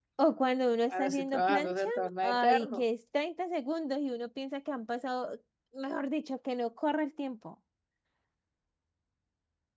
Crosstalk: present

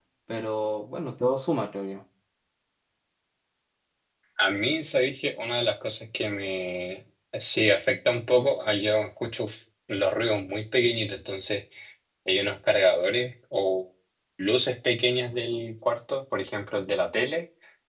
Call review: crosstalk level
none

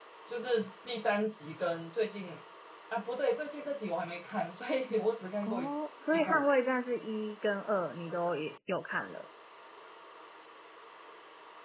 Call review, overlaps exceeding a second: none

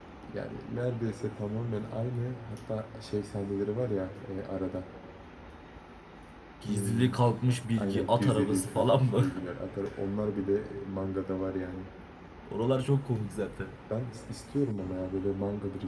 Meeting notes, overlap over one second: present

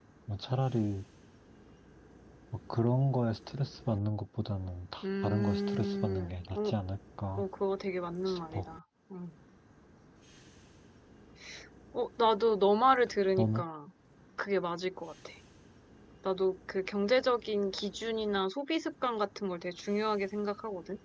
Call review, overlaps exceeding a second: present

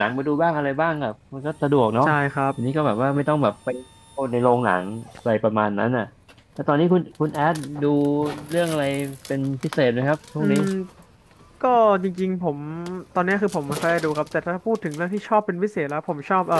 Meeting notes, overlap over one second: none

